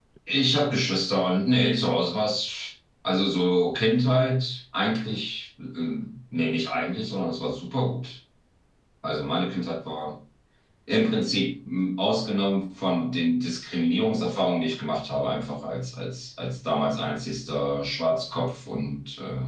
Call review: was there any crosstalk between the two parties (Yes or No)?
No